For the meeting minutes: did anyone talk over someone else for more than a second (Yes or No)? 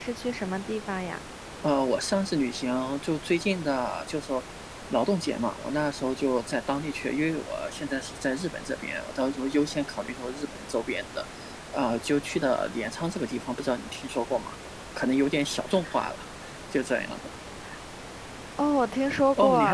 No